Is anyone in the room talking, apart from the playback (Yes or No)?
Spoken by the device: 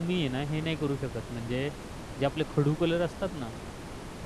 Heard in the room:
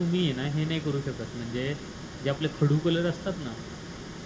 No